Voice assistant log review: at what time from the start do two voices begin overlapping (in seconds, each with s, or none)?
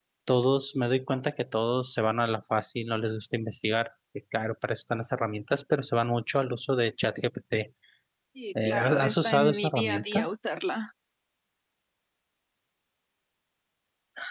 8.6 s